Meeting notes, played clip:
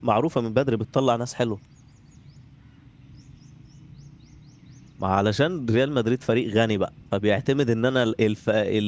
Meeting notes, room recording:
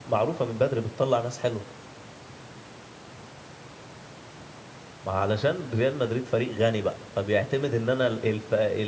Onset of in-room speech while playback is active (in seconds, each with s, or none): none